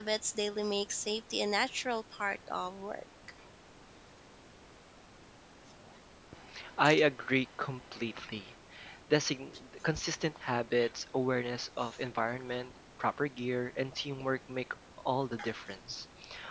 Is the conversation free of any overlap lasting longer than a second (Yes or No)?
Yes